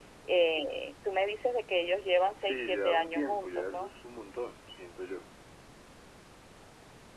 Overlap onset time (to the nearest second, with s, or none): 2 s